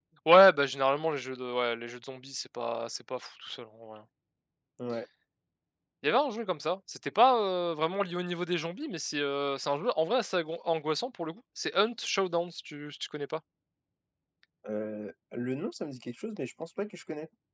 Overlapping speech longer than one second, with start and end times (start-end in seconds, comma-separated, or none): none